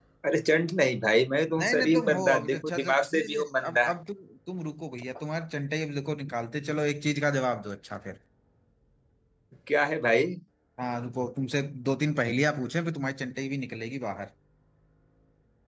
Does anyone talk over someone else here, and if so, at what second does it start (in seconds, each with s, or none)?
1.6 s